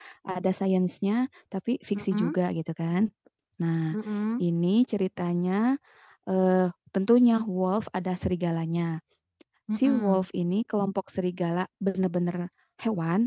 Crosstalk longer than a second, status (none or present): none